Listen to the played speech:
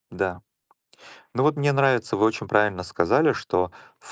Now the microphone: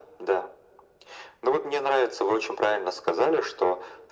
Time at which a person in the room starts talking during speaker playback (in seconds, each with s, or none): none